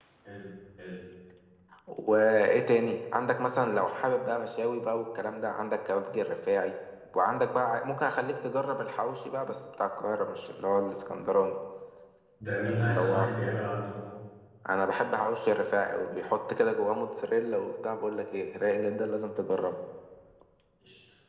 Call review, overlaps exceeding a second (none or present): none